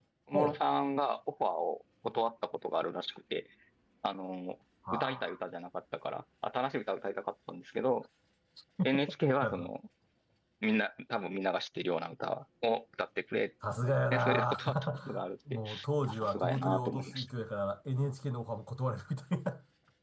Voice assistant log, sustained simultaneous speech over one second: present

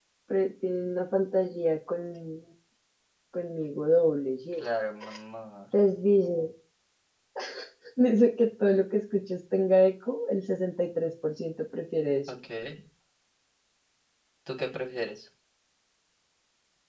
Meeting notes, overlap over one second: none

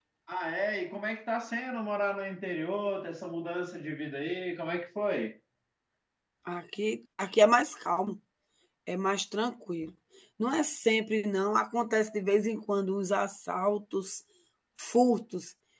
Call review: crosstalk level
none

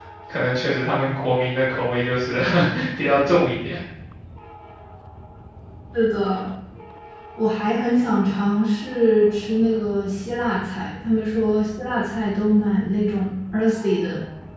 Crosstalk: none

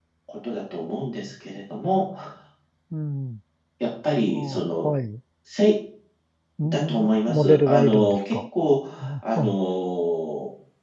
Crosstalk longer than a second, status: present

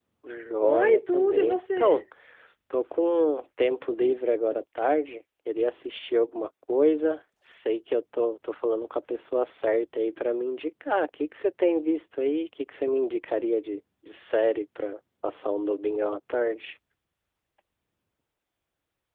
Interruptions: present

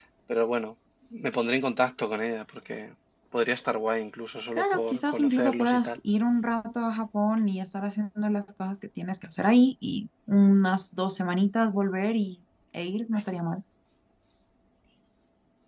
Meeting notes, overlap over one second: present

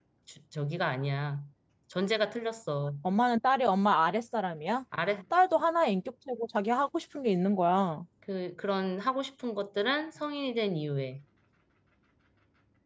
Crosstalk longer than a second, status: none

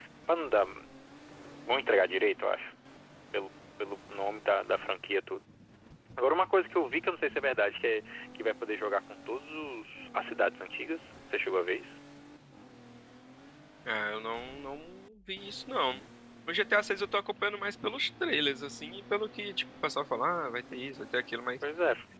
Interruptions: none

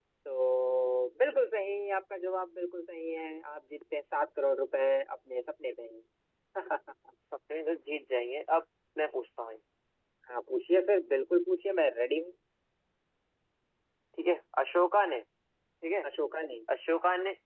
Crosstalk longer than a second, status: none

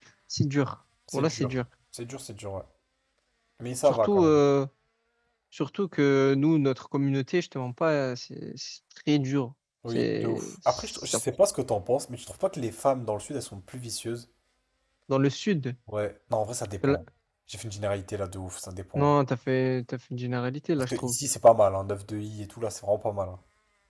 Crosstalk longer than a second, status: present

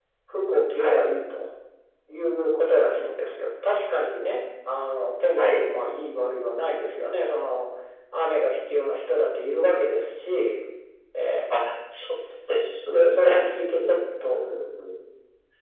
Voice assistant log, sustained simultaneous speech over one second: none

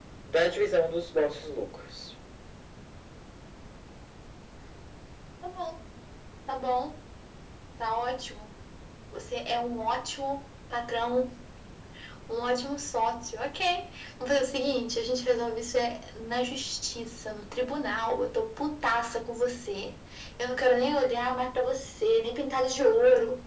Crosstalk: none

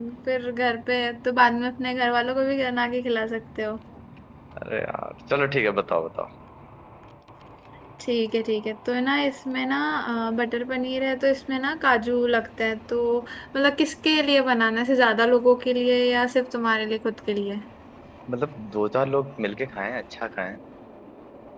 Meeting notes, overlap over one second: none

